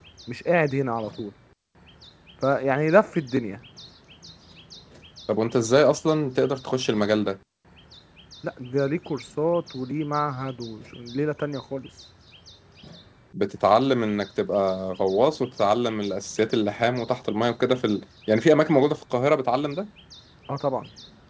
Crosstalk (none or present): none